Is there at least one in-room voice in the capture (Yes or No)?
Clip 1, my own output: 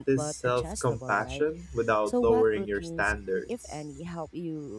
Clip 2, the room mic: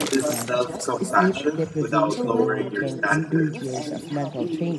Yes